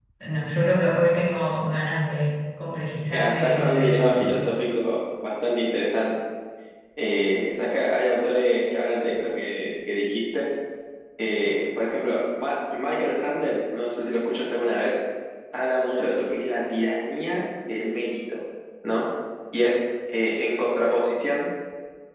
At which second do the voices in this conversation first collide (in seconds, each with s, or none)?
3.1 s